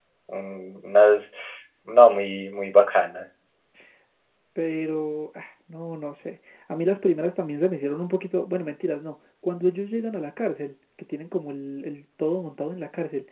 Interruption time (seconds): none

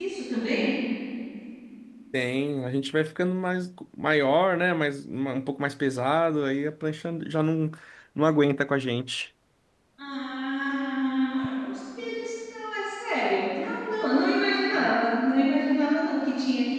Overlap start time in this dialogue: none

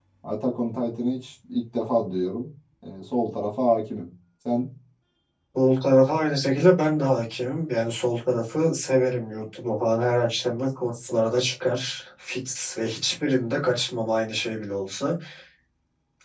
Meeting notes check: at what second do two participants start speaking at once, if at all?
none

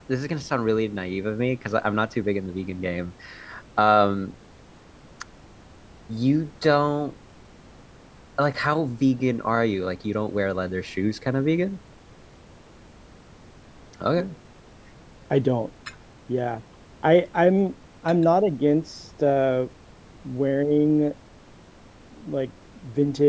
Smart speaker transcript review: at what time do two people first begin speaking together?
none

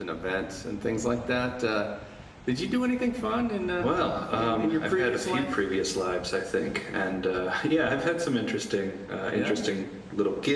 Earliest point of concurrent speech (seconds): 4.3 s

